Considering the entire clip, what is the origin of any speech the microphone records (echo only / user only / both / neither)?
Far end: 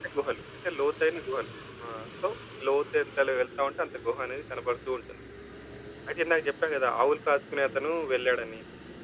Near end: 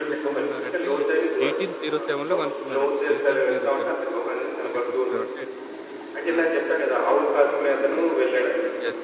both